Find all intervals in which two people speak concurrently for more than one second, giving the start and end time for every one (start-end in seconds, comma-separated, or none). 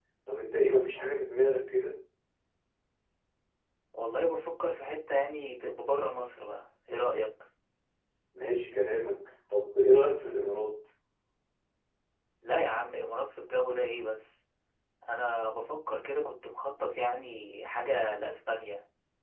none